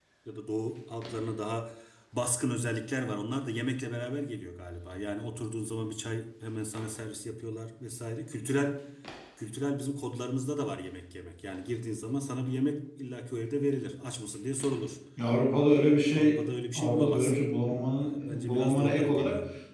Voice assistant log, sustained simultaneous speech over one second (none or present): present